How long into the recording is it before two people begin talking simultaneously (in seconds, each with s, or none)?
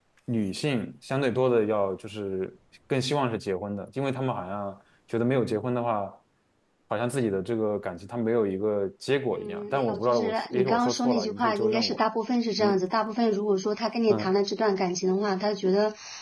9.3 s